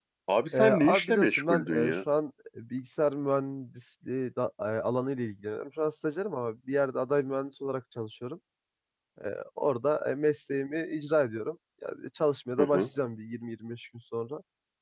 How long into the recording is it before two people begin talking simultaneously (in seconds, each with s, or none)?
0.5 s